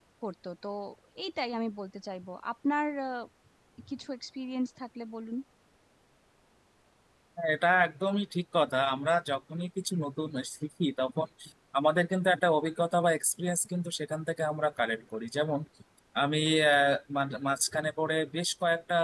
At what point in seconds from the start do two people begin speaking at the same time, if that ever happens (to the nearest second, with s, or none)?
none